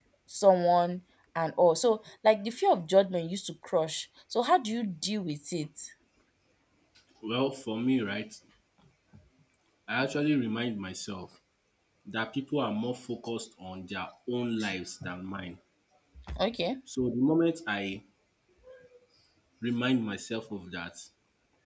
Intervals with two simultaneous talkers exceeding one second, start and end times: none

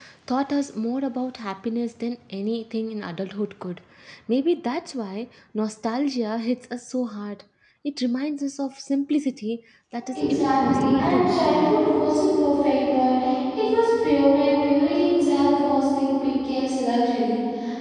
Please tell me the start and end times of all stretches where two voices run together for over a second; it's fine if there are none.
10.1-11.8

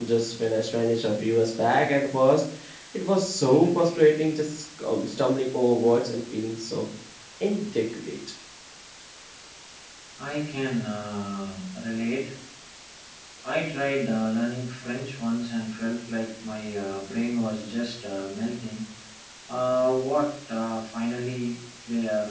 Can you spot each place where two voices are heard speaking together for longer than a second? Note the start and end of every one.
none

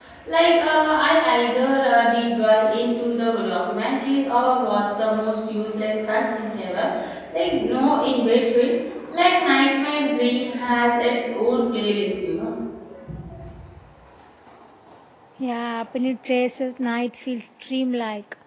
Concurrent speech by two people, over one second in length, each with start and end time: none

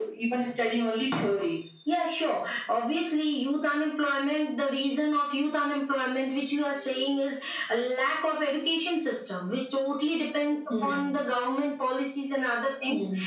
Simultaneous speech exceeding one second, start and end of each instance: none

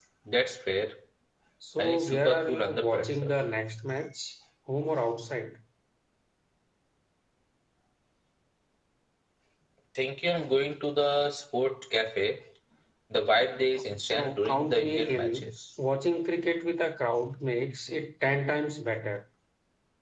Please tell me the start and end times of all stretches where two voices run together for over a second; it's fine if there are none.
1.8-3.1, 13.7-15.5

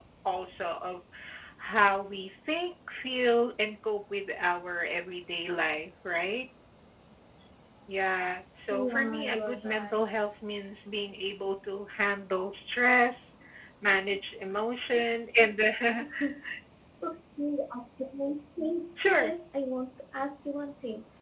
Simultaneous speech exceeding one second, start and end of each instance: 8.7-10.0

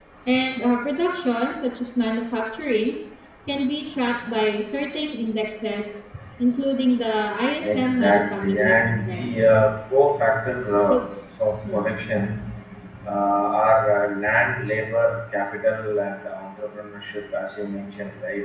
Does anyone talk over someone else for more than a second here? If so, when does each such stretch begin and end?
7.6-9.5

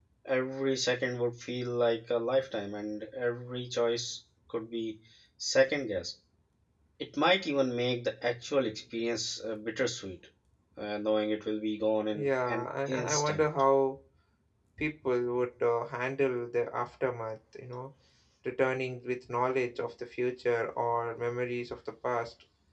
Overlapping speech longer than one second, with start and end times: 12.1-13.5

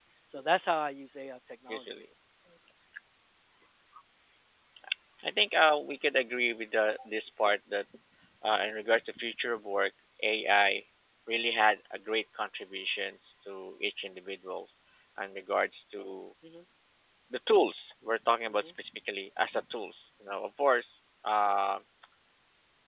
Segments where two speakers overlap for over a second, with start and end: none

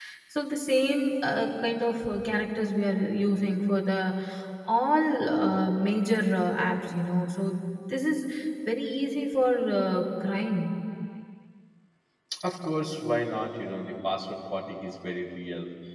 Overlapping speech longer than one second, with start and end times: none

